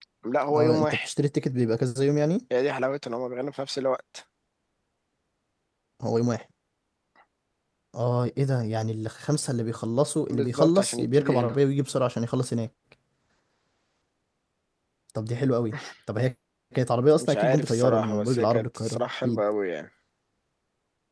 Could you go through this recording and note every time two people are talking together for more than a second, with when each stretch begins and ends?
10.3-11.6, 17.2-19.4

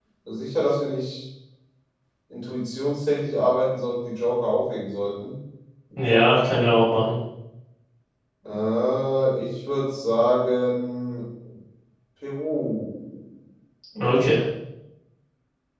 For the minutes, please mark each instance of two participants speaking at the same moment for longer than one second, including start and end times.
none

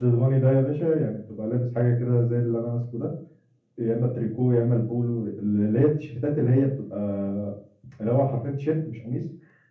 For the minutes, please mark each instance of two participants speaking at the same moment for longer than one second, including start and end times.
none

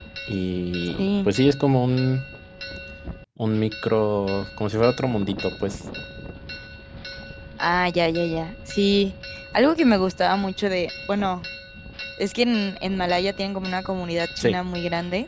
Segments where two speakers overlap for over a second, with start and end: none

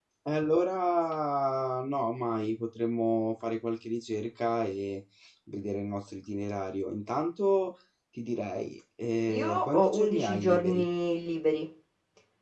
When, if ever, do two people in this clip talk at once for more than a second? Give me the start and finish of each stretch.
9.4-10.8

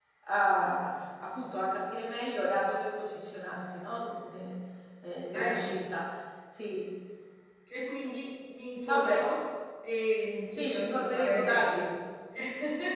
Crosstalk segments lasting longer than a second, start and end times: 10.6-11.8

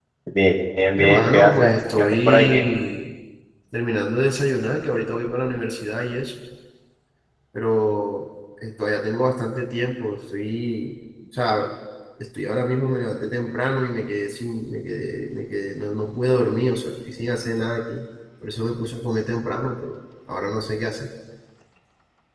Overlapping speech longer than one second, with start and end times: 1.0-2.6

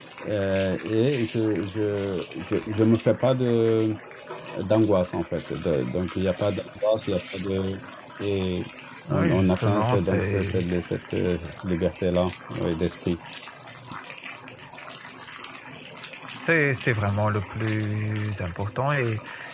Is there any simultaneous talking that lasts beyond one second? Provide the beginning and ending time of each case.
9.1-10.7

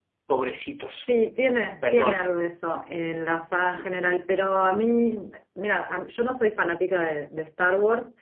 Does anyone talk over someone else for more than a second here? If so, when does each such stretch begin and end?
none

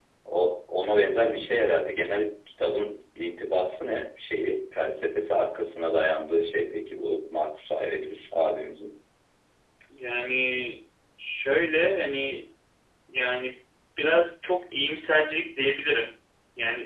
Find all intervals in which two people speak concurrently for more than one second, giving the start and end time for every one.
none

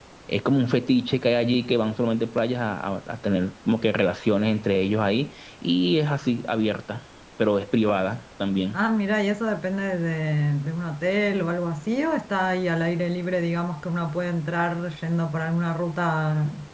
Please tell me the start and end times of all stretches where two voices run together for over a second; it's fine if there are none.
none

